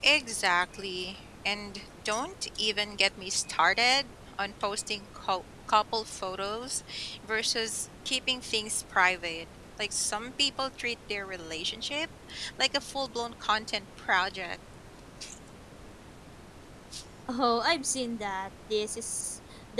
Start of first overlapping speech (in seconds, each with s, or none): none